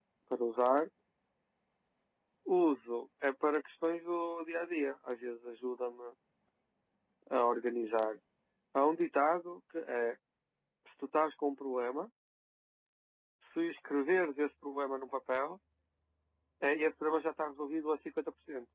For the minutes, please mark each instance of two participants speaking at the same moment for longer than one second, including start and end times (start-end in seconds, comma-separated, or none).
none